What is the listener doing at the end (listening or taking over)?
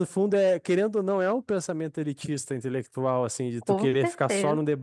listening